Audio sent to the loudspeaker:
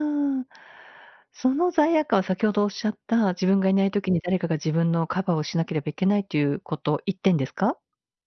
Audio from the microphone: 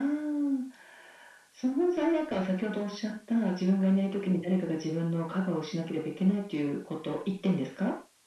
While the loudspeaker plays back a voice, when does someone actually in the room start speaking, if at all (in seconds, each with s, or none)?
none